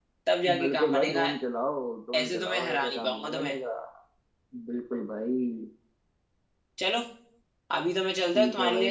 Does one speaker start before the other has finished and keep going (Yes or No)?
Yes